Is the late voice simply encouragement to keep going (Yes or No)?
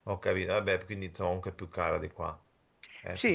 No